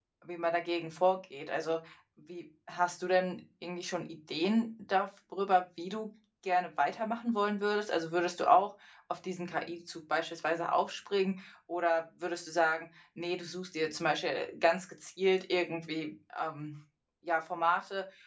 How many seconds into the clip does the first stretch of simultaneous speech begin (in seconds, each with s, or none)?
none